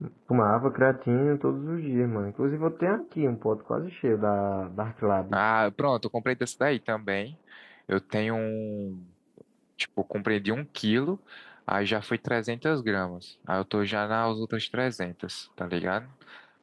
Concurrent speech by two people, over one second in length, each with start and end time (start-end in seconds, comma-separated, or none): none